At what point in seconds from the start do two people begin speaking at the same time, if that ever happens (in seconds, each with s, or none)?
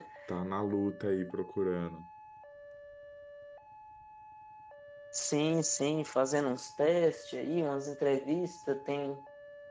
none